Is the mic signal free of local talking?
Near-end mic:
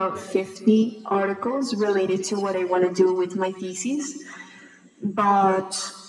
Yes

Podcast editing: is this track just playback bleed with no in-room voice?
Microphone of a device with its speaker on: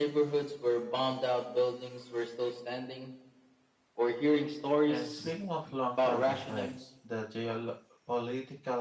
No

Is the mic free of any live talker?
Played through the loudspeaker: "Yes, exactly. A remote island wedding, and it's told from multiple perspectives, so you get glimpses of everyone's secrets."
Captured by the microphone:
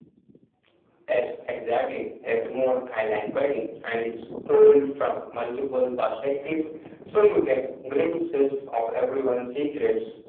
Yes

